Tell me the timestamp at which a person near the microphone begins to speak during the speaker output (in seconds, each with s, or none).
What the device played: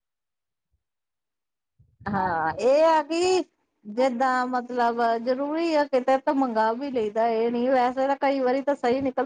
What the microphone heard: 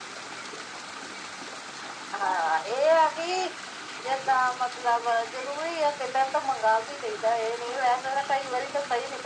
none